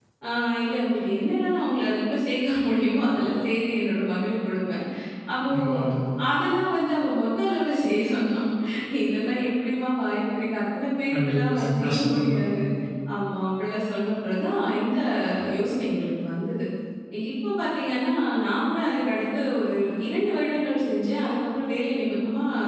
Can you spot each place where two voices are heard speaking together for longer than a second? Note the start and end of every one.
11.1-12.4

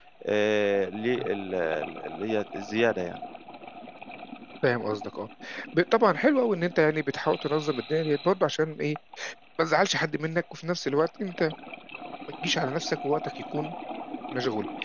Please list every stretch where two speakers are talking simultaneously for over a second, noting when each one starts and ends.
none

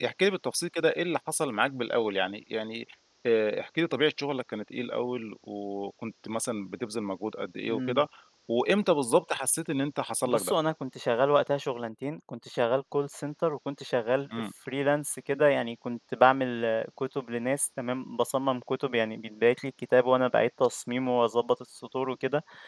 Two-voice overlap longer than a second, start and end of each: none

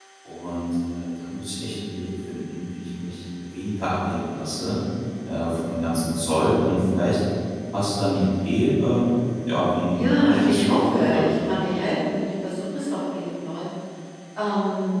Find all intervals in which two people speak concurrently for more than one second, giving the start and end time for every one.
9.9-11.3

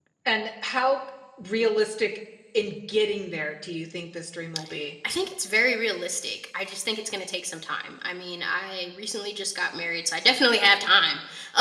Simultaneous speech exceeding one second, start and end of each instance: none

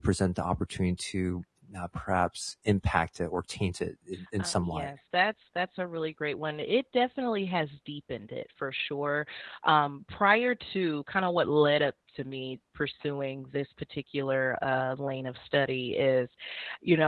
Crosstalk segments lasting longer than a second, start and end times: none

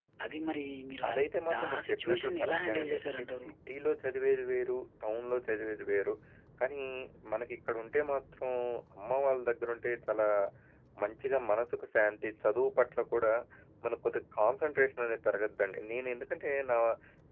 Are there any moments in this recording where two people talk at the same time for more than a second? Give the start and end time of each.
1.1-3.5

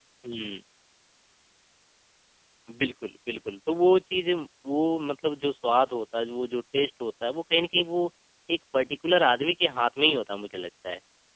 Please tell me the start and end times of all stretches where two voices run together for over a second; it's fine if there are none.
none

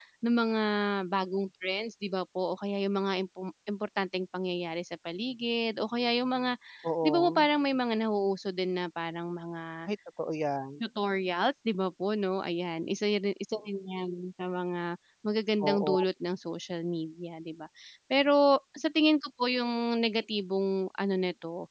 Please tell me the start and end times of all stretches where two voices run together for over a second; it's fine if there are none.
none

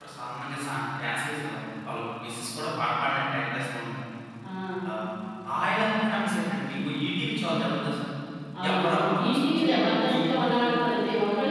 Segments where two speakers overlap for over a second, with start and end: 8.7-10.4

